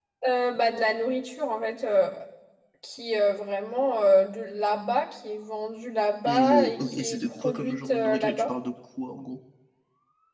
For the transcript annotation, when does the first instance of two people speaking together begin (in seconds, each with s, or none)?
6.3 s